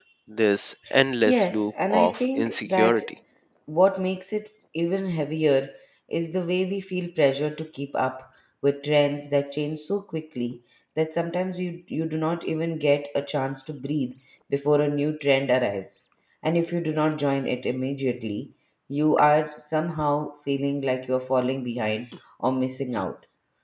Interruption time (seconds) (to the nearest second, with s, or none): 1 s